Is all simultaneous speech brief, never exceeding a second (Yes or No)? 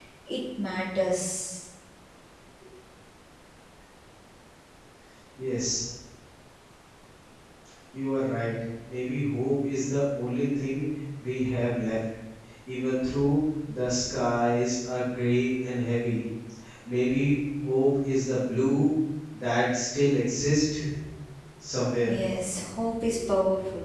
Yes